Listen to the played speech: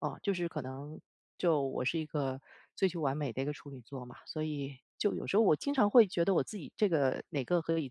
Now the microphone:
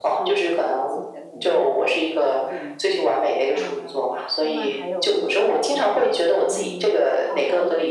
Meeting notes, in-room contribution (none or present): present